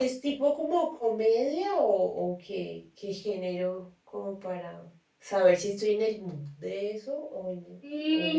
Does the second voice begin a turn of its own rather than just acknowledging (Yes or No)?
Yes